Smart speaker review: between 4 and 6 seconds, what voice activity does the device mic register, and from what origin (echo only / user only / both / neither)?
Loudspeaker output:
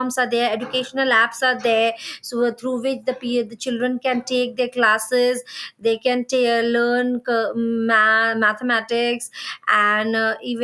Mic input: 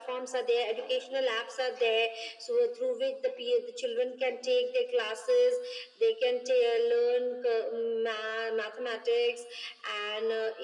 echo only